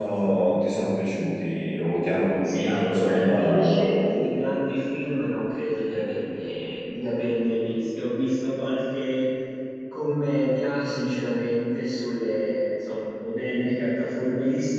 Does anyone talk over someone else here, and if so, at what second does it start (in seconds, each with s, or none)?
2.4 s